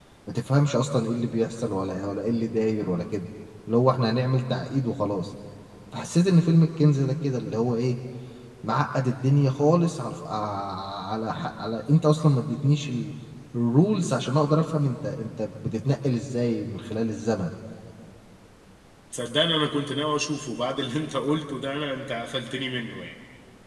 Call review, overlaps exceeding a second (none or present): none